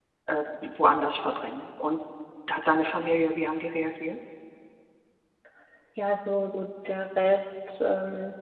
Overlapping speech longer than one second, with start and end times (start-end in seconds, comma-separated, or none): none